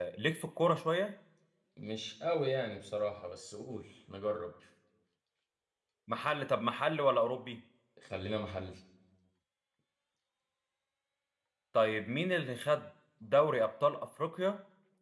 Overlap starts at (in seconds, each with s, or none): none